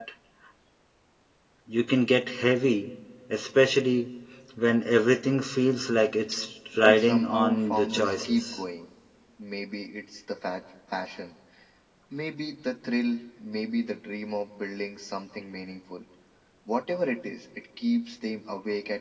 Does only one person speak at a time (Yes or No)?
No